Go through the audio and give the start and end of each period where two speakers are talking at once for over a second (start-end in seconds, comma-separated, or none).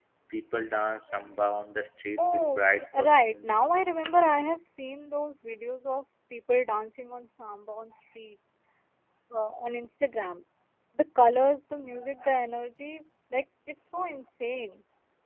2.2-3.5